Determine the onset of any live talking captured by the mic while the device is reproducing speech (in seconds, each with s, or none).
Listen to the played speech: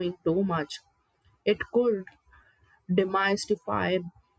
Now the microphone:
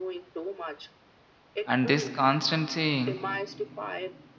1.6 s